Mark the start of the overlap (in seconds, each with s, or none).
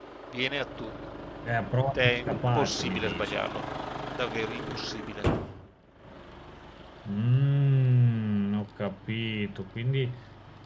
1.9 s